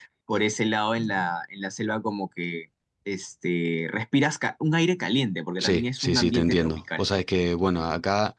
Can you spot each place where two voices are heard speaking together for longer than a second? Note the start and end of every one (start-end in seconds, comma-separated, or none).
5.6-7.0